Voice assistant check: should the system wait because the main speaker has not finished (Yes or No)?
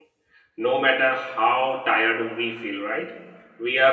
Yes